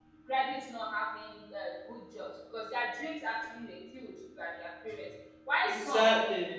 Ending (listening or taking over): listening